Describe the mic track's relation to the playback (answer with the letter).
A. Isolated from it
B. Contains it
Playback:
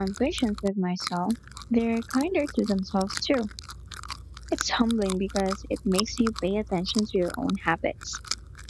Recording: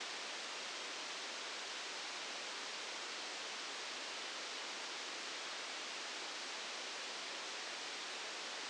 A